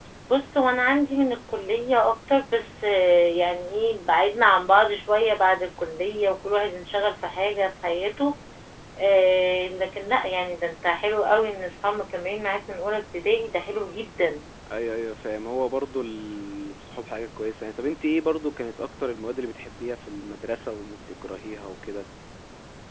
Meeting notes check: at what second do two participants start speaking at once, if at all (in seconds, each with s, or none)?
none